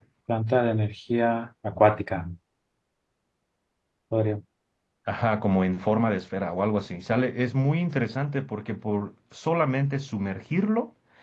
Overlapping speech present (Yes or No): No